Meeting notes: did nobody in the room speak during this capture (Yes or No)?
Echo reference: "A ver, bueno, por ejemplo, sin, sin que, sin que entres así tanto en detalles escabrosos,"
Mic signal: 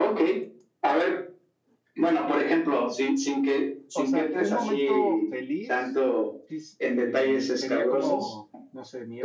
No